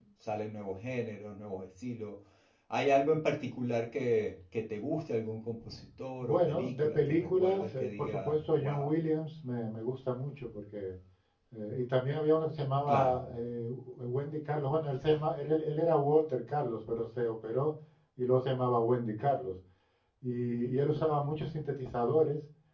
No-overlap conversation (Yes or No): No